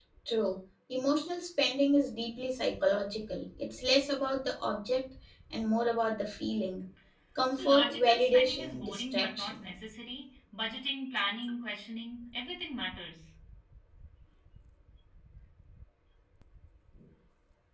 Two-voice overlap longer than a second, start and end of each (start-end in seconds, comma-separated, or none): 7.5-9.5